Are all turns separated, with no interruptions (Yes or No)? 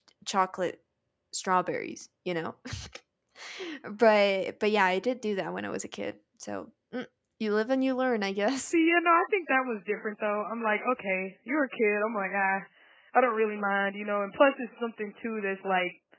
Yes